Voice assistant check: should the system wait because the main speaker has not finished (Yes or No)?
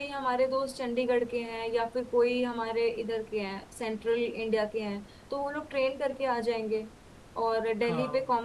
Yes